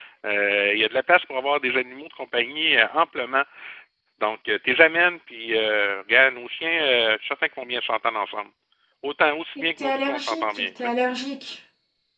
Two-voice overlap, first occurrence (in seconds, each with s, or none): 9.6 s